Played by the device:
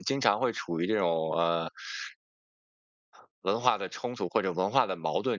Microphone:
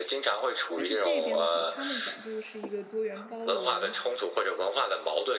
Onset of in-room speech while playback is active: 1 s

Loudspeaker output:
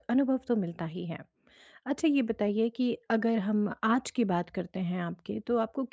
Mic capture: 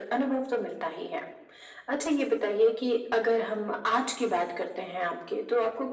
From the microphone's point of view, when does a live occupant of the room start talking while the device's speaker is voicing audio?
none

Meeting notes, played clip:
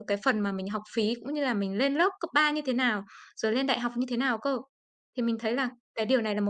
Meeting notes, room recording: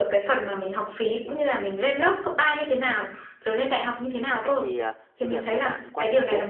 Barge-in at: 4 s

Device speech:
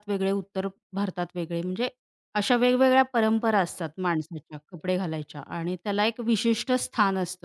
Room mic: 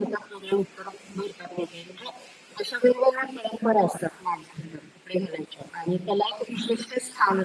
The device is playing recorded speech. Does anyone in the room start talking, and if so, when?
none

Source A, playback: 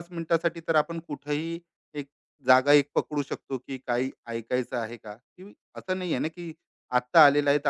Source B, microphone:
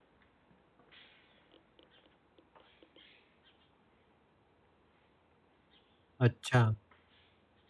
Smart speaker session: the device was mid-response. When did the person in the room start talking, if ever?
6 s

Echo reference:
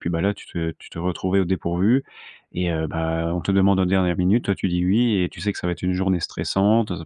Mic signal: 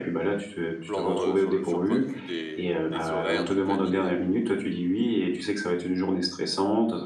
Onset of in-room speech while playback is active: 1 s

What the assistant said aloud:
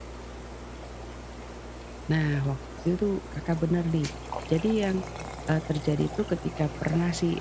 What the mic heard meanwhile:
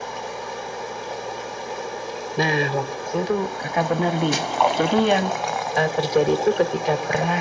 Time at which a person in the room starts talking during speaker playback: none

